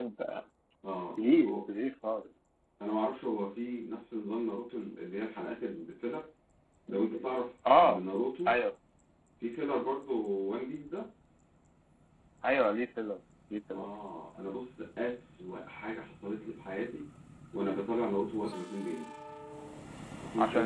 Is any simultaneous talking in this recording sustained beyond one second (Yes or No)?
No